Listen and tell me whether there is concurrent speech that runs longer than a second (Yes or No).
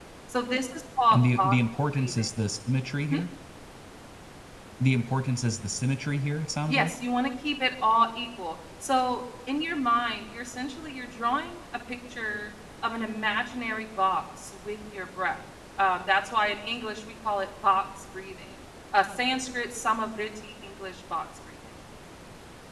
No